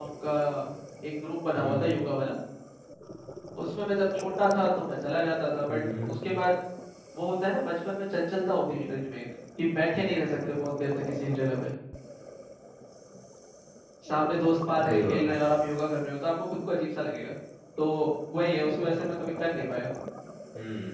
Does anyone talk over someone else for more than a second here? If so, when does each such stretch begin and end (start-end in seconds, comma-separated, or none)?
none